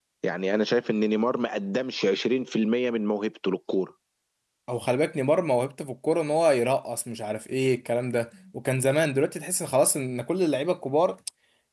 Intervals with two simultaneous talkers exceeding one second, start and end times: none

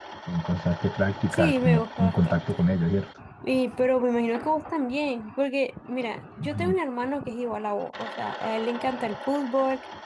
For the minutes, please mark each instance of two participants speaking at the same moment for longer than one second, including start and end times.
1.3-2.6

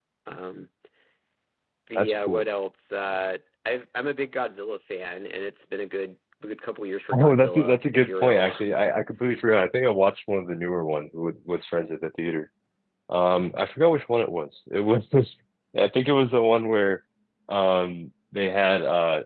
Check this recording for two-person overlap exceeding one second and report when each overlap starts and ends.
7.1-8.5

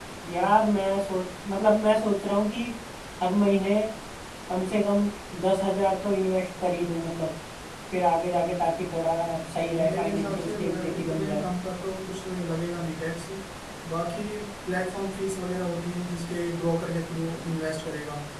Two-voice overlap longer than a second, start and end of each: 9.8-11.4

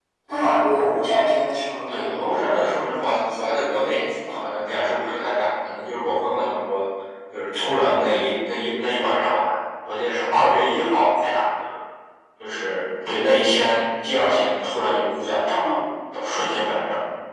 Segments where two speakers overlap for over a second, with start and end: 1.9-4.4

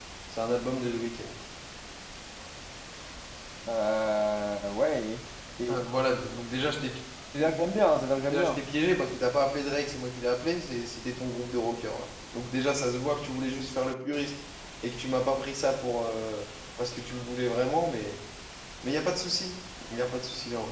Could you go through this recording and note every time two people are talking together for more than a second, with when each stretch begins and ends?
none

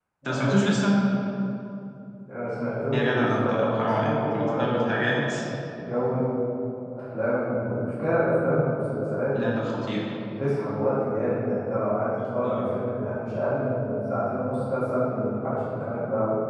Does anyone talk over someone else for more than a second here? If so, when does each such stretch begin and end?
2.9-5.3

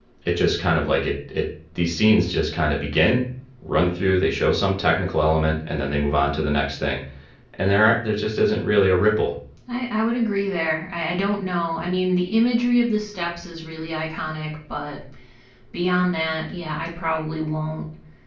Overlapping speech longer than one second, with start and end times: none

